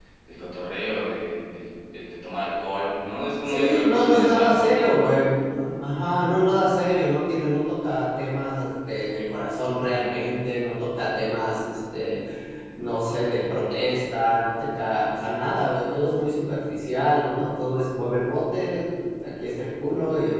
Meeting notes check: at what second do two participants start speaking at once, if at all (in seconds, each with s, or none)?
3.5 s